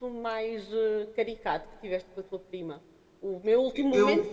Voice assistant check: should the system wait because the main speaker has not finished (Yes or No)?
Yes